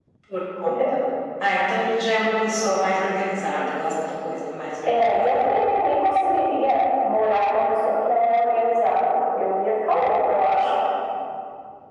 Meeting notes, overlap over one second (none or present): none